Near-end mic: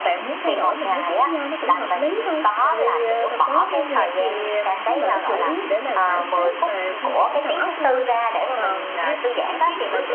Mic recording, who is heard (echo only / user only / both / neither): both